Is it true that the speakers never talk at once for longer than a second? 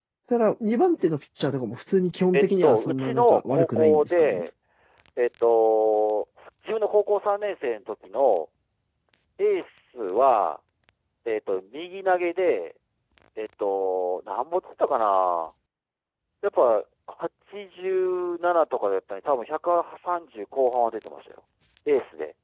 No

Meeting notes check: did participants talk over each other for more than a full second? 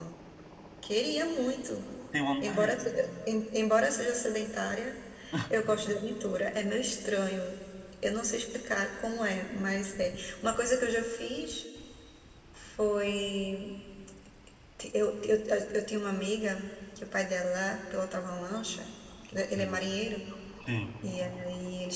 No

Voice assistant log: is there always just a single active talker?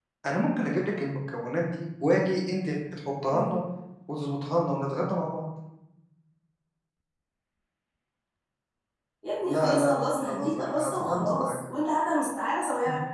No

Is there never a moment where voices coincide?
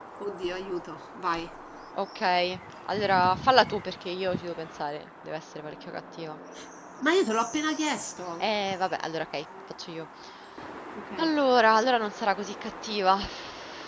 Yes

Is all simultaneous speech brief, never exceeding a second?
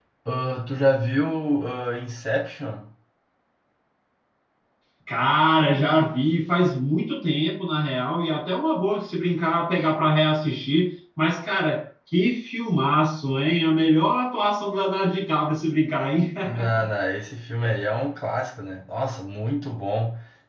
Yes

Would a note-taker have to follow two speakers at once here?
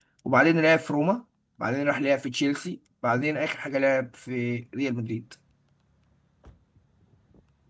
No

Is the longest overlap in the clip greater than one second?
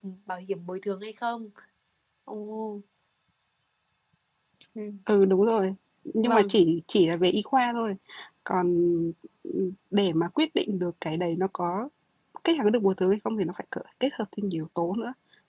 No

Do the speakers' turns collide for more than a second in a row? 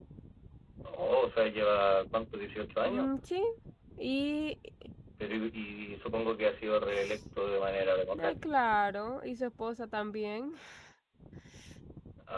No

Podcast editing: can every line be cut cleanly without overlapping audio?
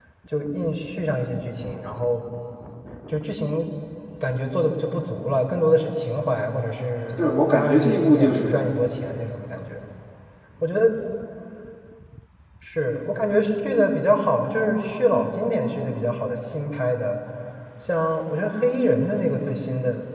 No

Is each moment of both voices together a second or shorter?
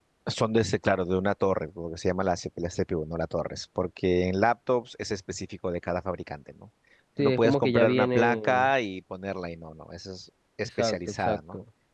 No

